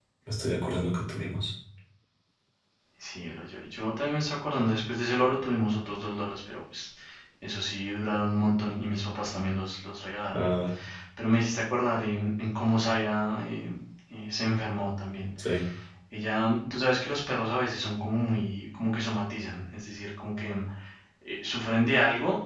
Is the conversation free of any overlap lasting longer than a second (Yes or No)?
Yes